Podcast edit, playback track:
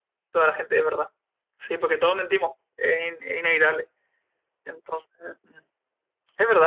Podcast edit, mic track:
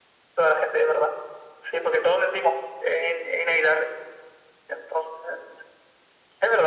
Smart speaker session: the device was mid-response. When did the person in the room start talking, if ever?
none

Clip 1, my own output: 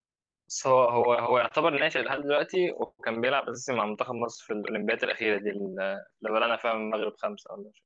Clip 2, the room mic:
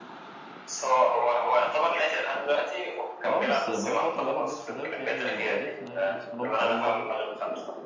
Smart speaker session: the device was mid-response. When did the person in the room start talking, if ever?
3.2 s

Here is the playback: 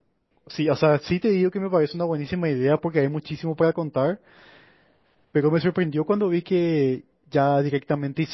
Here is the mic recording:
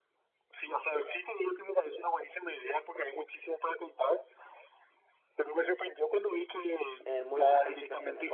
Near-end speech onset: 7.0 s

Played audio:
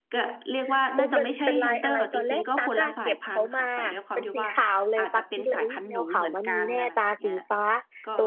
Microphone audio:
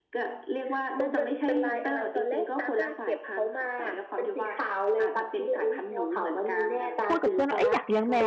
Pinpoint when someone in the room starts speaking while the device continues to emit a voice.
7.0 s

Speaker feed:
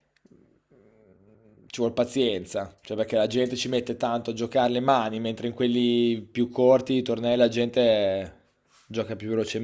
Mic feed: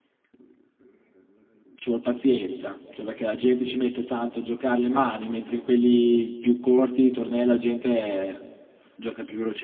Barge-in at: none

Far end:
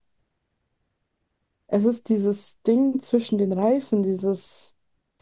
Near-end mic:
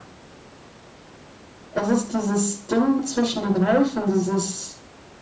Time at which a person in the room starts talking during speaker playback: none

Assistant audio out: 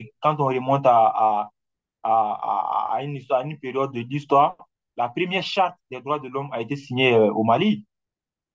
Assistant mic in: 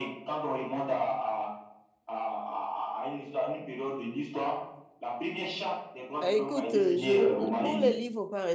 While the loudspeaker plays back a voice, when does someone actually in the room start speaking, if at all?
6.2 s

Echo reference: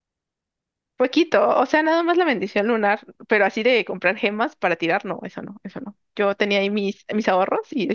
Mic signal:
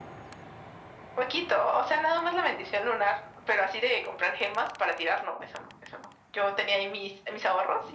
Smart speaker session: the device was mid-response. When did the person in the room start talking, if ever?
none

